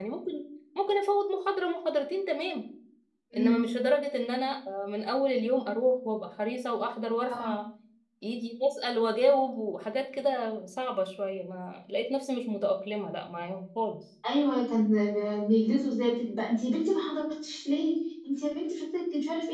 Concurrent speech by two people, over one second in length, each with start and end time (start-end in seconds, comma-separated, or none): none